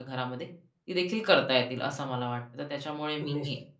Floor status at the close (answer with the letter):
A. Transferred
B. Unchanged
B